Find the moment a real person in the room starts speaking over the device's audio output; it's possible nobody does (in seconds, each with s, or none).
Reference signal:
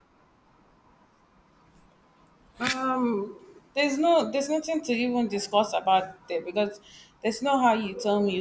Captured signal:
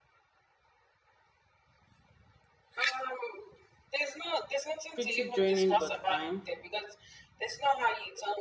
4.9 s